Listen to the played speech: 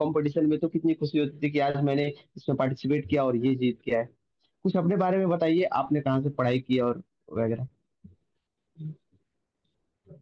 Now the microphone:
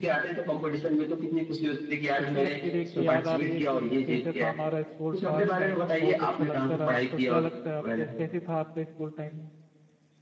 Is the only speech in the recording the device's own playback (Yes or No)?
No